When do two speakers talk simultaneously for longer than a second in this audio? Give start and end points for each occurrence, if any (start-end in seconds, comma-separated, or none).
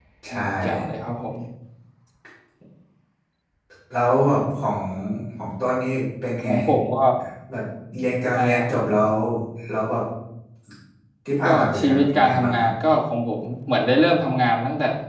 11.4-12.7